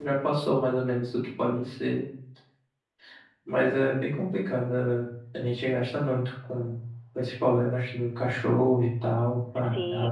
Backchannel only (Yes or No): No